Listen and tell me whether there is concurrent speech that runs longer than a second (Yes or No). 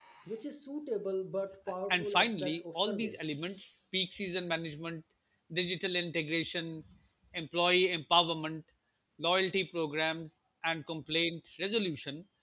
Yes